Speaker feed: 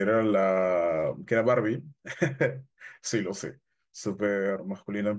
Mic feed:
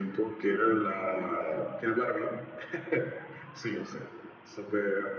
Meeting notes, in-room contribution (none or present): none